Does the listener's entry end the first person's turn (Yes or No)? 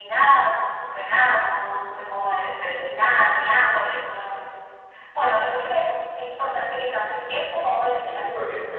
Yes